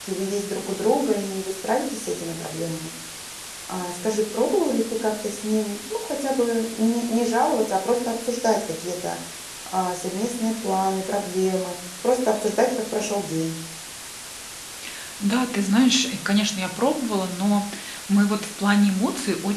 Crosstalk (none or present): none